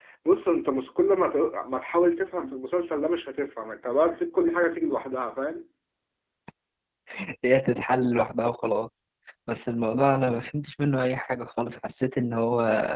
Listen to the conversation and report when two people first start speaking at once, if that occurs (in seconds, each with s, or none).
none